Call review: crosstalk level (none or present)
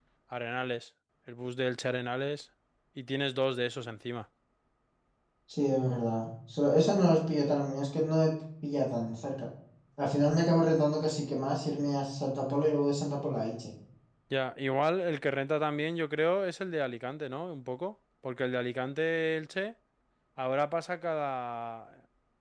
none